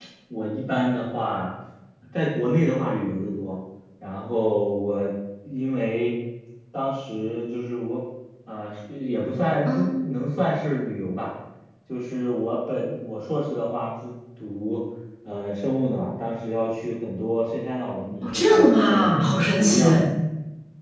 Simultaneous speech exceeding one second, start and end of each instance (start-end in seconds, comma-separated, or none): 18.2-19.8